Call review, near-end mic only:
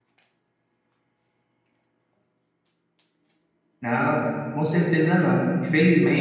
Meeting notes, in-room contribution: present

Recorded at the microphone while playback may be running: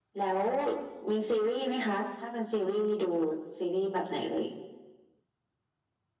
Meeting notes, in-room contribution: none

